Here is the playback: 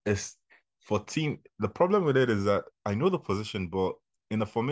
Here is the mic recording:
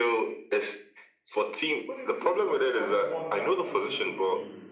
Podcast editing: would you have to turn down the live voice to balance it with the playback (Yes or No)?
No